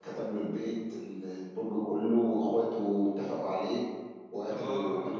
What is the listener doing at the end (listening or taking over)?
taking over